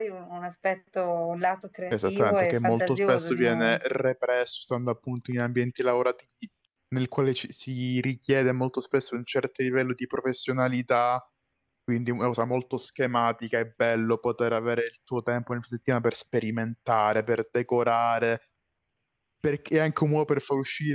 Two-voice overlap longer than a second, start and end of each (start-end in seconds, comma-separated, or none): 1.9-3.8